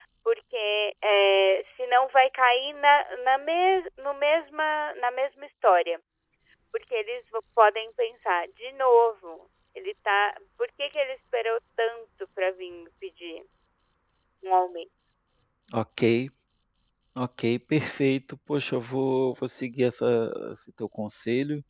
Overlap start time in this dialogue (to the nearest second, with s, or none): none